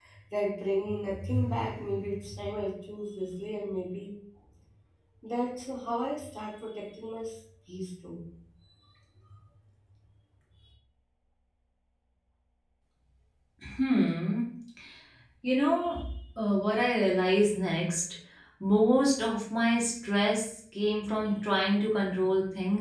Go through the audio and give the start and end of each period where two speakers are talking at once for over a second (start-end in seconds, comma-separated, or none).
none